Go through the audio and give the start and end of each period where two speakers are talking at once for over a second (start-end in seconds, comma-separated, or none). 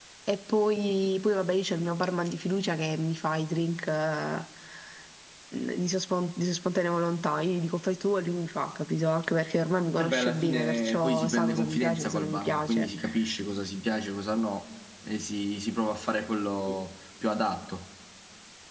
10.0-12.9